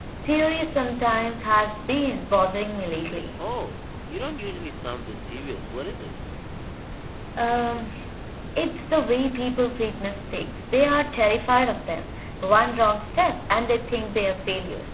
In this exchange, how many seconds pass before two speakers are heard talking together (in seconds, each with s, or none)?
none